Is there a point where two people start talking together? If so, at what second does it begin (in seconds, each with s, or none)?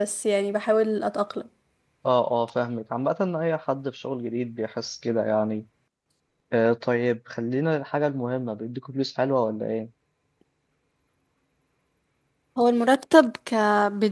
none